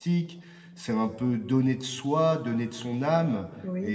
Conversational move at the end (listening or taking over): listening